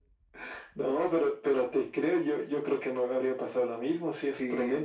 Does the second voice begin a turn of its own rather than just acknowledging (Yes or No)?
No